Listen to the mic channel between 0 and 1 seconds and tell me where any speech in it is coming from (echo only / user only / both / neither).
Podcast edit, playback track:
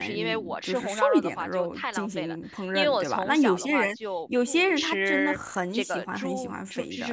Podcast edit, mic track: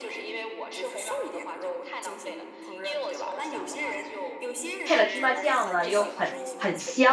echo only